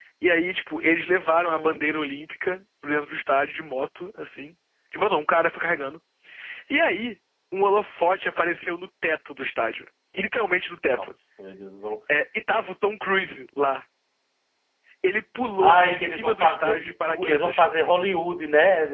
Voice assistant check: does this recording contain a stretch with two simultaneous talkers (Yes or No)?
Yes